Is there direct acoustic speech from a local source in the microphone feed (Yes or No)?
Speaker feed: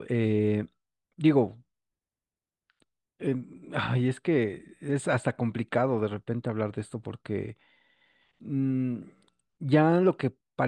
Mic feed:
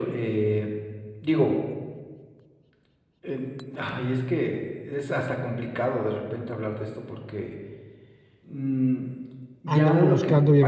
Yes